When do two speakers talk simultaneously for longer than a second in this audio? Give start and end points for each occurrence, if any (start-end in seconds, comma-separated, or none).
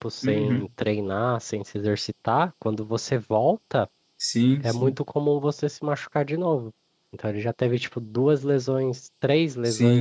none